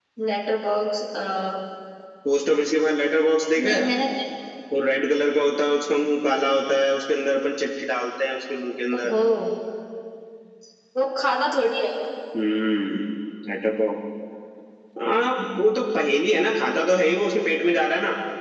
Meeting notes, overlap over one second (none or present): none